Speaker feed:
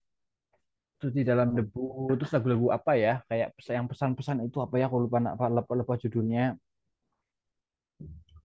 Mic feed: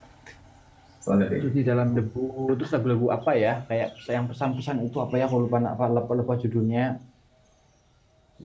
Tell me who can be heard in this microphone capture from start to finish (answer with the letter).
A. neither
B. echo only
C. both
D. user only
C